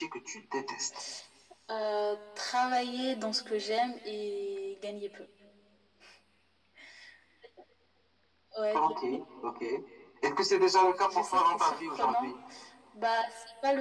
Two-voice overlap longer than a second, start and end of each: 11.1-12.3

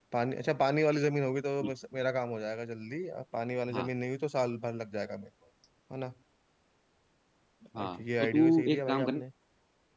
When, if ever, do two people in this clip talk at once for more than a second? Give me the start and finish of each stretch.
7.8-9.2

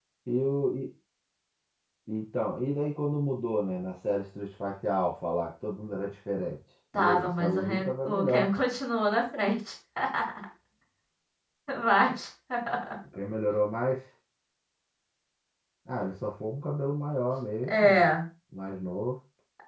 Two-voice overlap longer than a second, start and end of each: 6.9-8.5

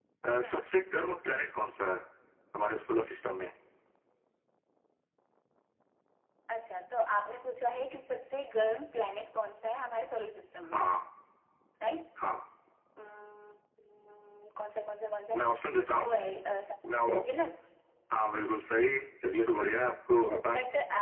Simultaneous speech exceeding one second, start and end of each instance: none

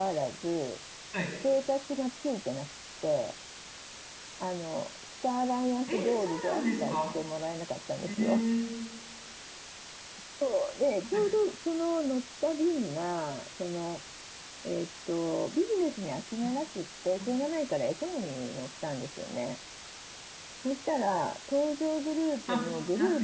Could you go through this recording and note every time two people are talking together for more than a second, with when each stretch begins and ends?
5.9-7.2

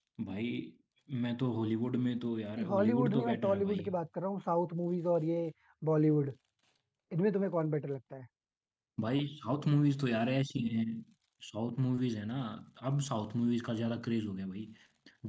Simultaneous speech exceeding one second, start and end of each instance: 2.6-3.8

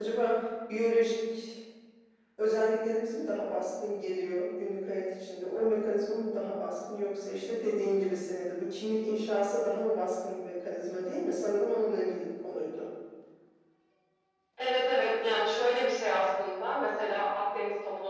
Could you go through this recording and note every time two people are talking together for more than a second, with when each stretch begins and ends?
none

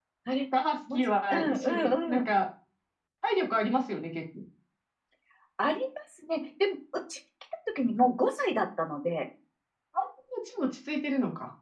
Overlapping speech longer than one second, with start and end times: 0.9-2.3

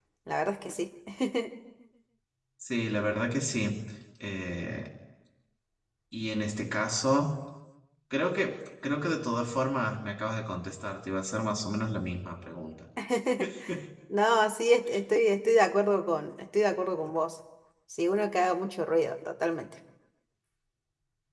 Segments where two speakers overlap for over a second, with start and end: none

